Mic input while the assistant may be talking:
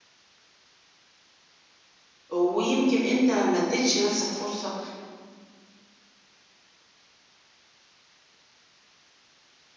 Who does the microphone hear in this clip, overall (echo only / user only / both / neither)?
user only